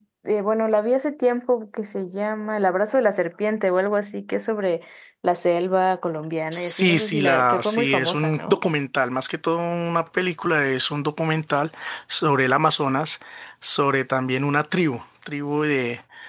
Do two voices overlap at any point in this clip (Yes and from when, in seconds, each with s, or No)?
Yes, from 6.5 s